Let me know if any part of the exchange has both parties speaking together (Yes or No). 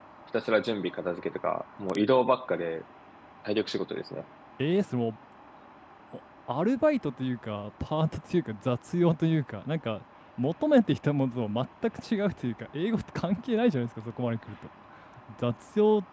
No